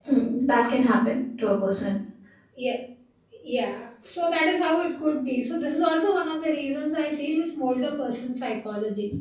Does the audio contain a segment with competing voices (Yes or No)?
No